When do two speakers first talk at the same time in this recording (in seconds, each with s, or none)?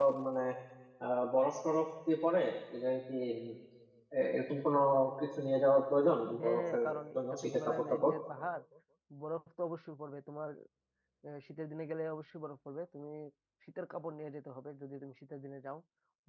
6.4 s